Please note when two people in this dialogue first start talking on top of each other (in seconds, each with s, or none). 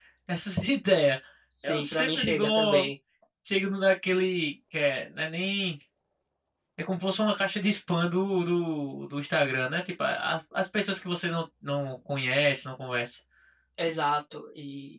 1.6 s